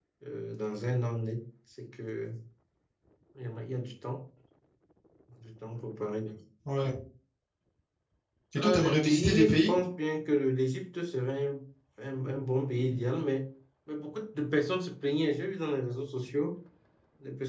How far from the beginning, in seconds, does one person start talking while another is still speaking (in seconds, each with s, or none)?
8.6 s